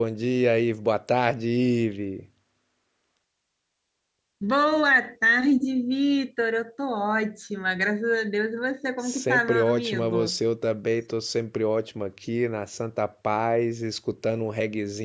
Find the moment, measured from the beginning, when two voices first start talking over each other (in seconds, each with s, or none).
9.0 s